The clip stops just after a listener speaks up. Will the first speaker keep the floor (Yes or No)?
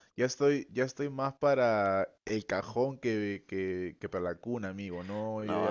No